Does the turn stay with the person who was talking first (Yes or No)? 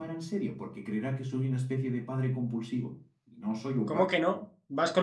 No